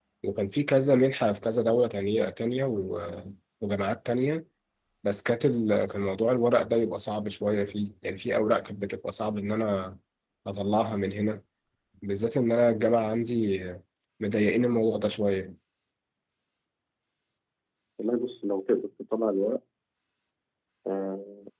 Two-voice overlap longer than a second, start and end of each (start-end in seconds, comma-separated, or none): none